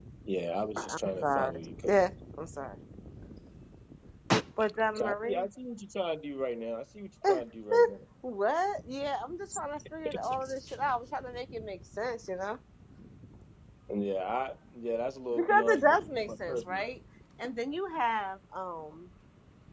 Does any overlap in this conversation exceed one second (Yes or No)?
Yes